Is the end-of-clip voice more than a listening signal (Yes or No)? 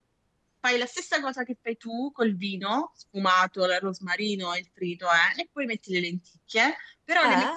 No